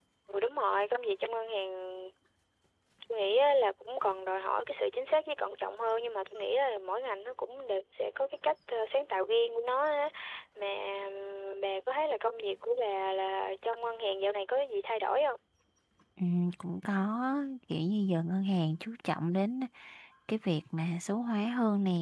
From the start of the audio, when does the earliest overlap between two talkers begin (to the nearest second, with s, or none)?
none